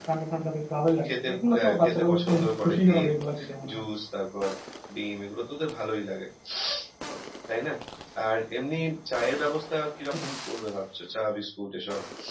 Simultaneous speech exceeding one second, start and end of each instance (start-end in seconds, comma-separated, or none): 1.1-3.1